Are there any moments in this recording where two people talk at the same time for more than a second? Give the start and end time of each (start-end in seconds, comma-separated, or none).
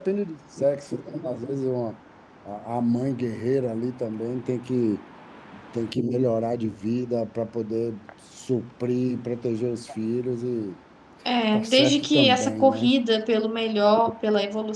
11.5-12.9